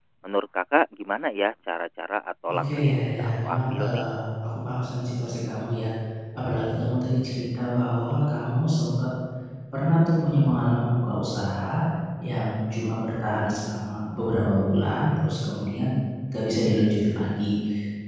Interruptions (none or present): present